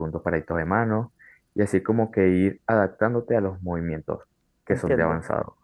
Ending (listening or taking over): taking over